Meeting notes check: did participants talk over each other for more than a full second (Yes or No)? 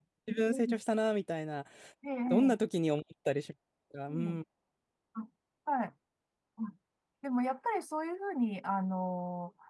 No